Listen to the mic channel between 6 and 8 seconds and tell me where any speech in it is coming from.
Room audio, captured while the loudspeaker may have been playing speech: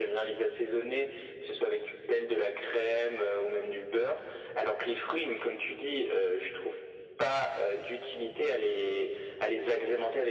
echo only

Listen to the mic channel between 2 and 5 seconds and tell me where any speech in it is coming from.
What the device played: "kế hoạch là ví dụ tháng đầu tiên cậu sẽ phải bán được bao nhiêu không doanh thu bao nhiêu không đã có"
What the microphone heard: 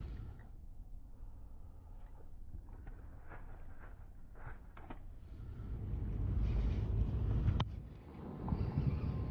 neither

